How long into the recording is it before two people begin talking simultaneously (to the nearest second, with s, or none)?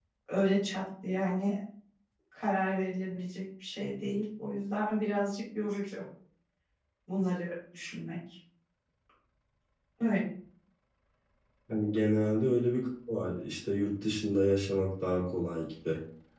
none